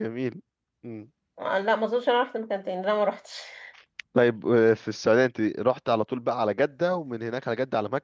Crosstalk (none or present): none